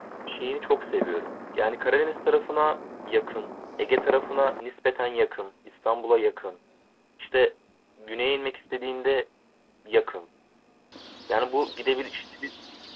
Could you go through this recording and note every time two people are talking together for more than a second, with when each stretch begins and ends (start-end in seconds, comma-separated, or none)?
none